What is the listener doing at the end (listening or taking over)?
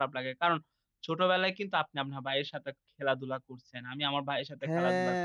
taking over